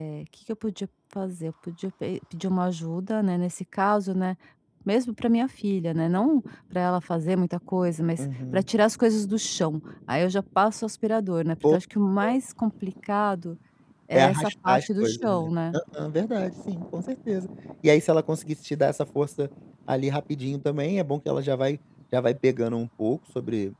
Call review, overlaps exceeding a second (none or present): present